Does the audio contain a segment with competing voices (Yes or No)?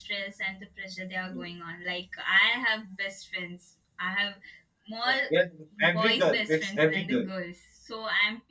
Yes